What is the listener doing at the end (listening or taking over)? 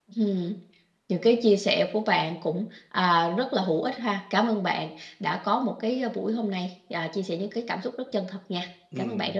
taking over